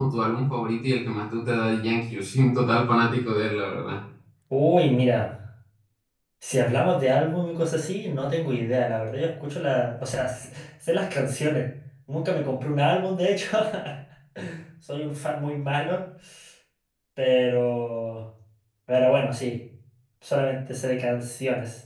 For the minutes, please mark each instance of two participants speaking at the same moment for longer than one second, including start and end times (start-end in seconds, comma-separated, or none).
none